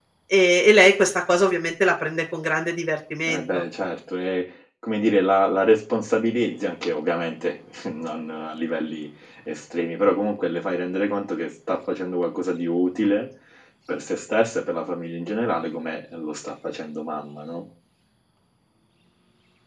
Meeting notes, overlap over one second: none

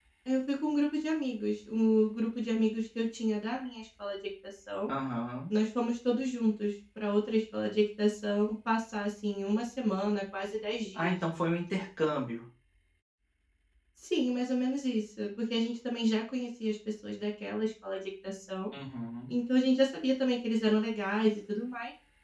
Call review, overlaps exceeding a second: none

